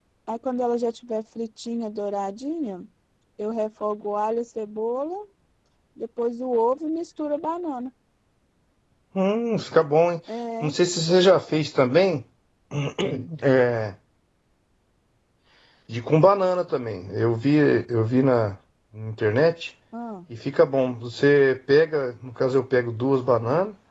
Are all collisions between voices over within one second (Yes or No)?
Yes